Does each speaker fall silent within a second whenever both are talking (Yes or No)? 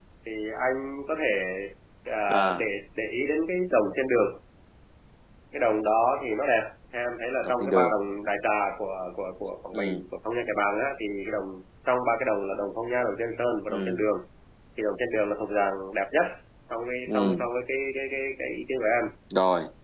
Yes